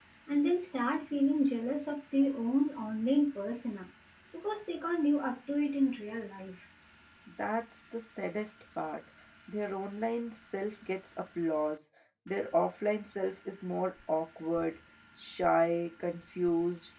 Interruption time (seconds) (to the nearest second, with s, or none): none